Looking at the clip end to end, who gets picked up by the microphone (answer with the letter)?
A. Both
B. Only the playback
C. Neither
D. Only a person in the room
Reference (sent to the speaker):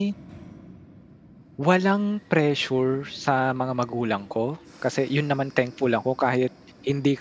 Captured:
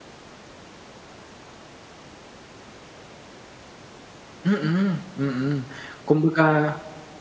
D